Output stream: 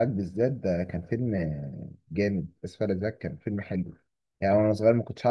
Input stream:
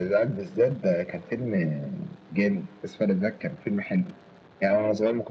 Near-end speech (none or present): none